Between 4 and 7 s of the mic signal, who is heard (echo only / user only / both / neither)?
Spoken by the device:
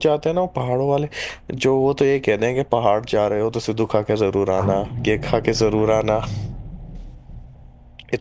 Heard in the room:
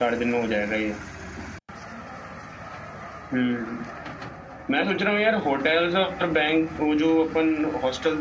user only